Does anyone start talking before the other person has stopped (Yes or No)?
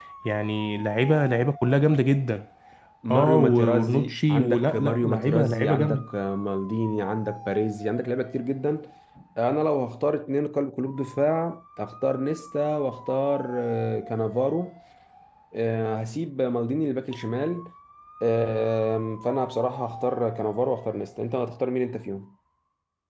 Yes